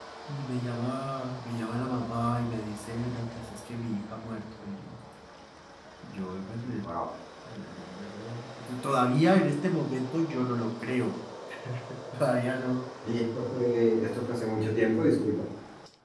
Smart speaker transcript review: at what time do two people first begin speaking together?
none

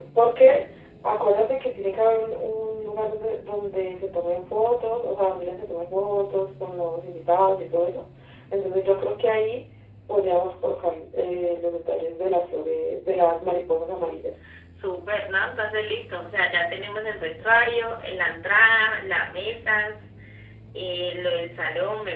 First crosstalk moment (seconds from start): none

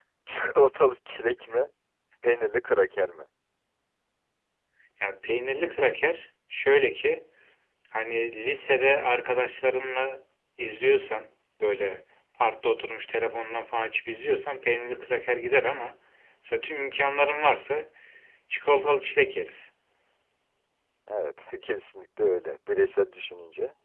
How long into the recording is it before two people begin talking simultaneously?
none

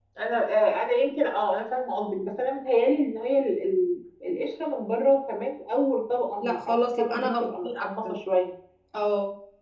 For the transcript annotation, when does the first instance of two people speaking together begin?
6 s

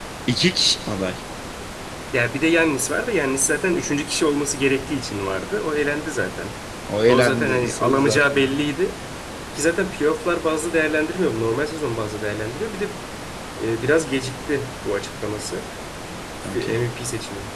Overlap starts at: 7 s

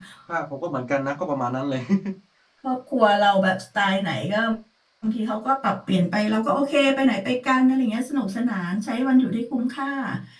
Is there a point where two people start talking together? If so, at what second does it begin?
none

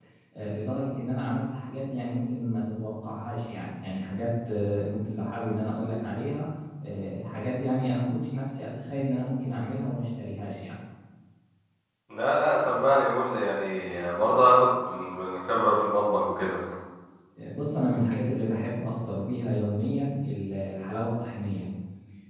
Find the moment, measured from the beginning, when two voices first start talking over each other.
none

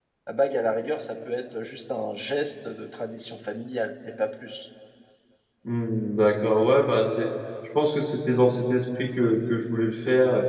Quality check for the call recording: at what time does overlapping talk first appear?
none

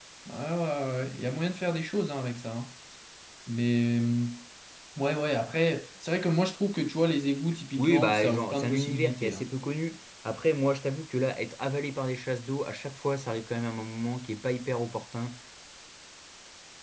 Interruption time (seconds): 8 s

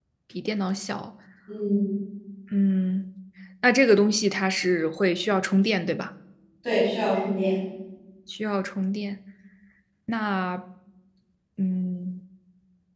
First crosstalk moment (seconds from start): none

